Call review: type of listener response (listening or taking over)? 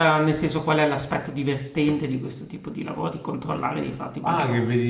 taking over